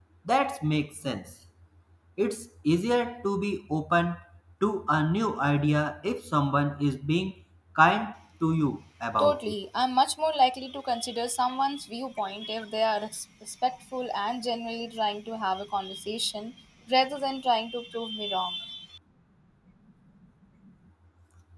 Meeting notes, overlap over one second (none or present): none